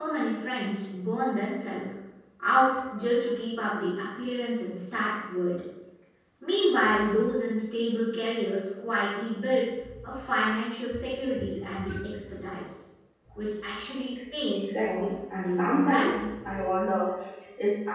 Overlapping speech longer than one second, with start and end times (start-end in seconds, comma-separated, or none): 14.6-16.1